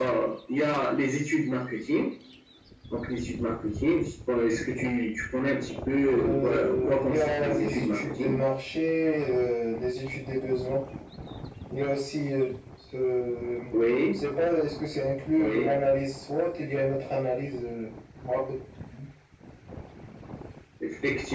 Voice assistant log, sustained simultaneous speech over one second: present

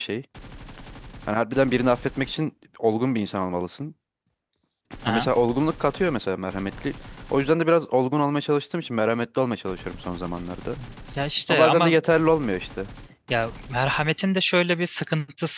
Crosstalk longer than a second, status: none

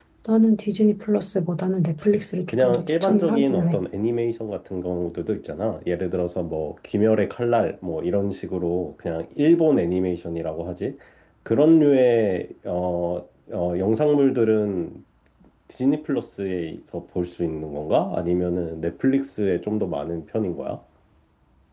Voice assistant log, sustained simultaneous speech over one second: present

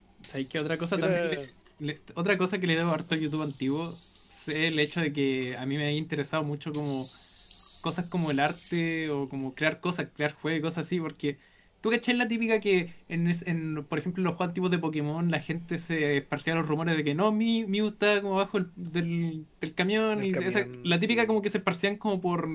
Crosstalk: present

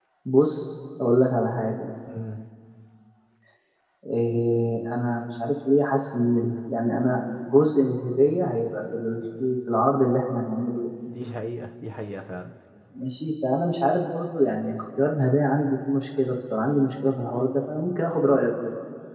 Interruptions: none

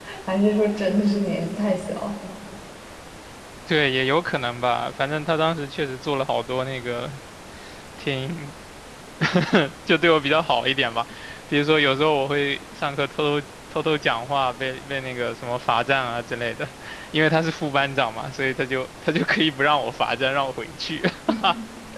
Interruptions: none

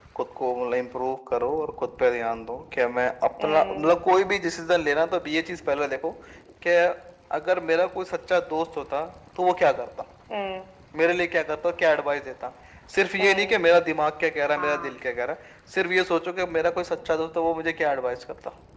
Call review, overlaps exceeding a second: none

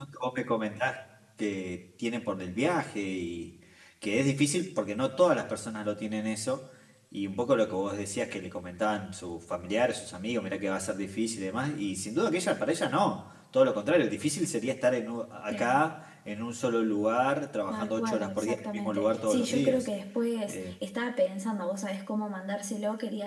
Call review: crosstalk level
present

